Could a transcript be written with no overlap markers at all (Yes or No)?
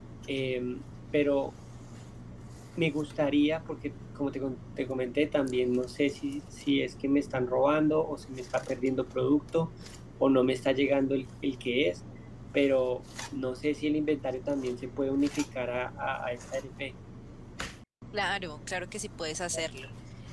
Yes